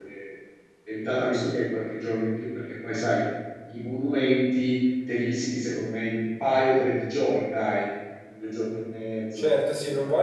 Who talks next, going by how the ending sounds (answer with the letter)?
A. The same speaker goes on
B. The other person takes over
B